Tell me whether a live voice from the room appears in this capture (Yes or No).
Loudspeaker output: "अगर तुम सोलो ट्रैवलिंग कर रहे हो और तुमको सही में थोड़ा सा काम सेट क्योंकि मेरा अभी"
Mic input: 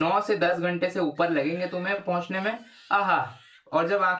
Yes